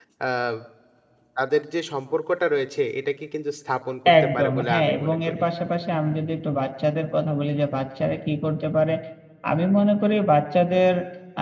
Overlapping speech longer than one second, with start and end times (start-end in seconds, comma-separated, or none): 4.2-5.4